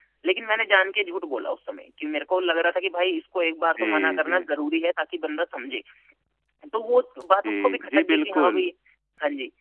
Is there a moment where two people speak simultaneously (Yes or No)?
Yes